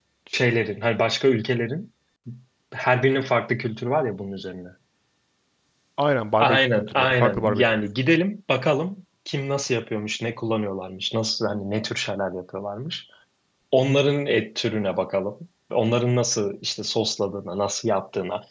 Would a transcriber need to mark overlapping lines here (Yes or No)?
Yes